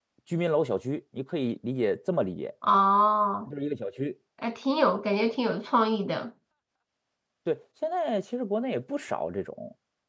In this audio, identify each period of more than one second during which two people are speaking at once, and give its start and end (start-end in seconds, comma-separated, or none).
none